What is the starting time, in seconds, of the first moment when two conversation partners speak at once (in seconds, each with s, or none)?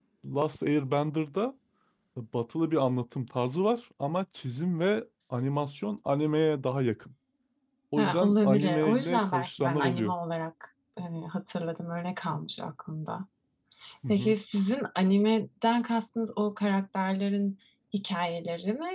8.0 s